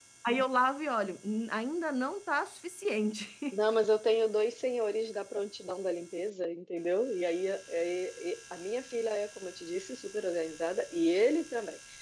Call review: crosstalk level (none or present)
none